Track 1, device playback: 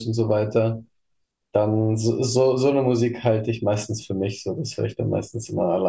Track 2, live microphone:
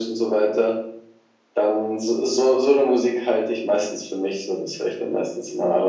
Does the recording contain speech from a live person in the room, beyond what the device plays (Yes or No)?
No